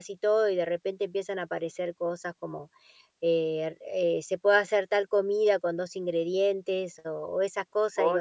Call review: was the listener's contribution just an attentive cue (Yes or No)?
Yes